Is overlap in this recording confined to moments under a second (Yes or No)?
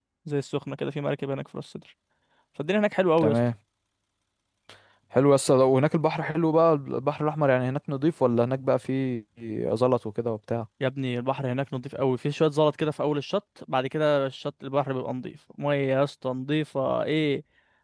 Yes